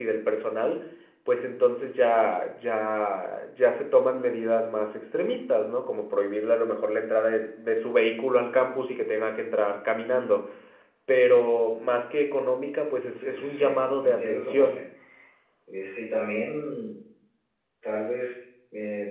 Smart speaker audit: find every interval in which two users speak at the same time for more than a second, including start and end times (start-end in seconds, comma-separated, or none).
13.2-14.8